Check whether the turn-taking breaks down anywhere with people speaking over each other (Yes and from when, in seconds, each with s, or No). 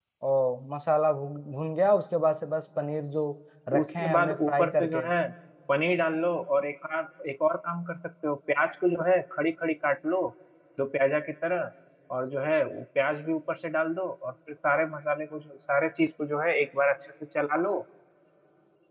Yes, from 3.8 s